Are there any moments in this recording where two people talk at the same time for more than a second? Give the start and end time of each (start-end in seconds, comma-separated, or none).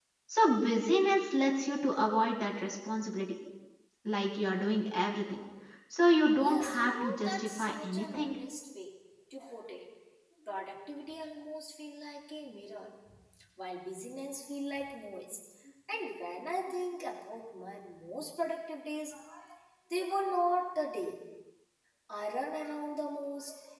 6.4-8.3